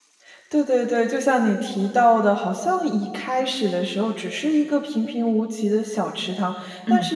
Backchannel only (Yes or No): Yes